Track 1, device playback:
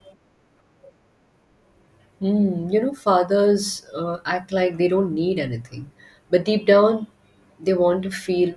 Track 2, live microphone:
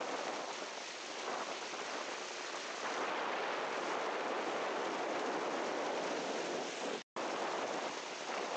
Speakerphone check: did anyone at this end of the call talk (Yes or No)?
No